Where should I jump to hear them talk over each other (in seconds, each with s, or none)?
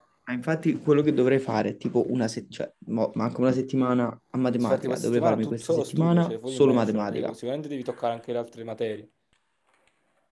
4.5 s